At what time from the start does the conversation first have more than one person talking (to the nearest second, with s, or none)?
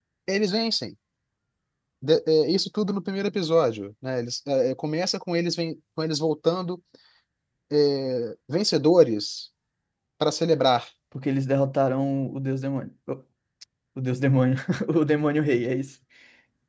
none